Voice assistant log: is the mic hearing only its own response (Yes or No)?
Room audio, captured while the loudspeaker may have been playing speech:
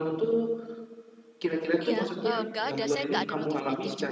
No